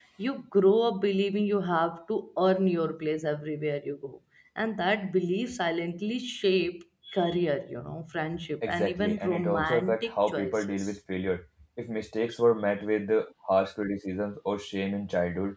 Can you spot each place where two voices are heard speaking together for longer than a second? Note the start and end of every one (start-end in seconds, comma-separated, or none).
8.6-10.8